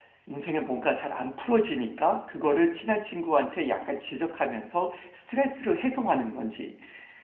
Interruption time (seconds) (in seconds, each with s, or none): none